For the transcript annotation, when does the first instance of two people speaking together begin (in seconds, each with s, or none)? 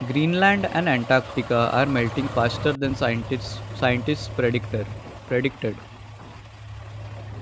none